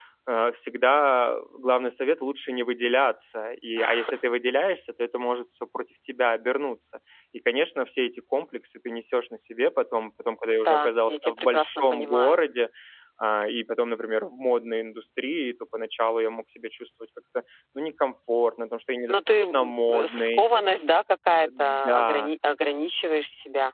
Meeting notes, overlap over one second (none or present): present